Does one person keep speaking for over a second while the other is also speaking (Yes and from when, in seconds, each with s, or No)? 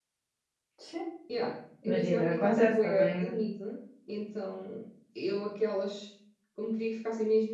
Yes, from 1.8 s